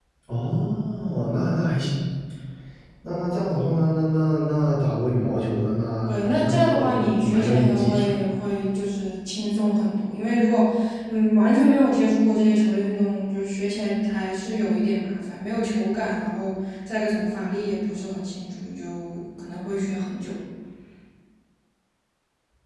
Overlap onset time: 6.1 s

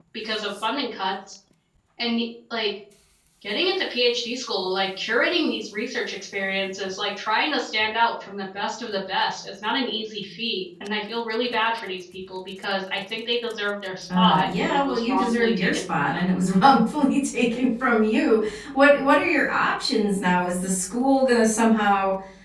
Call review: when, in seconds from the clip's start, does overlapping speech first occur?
14.1 s

